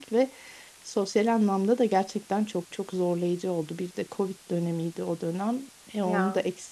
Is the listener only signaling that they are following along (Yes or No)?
Yes